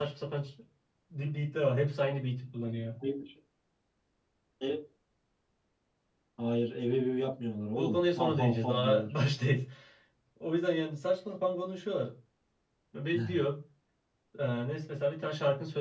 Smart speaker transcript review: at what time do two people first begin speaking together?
7.8 s

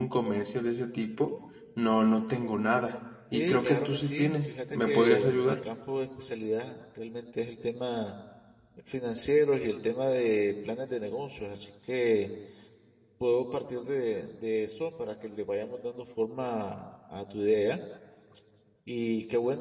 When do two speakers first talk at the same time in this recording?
3.3 s

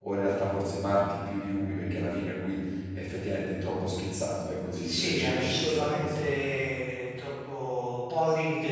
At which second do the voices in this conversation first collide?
4.8 s

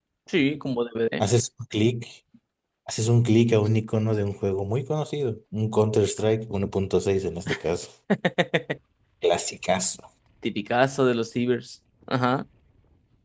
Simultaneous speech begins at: none

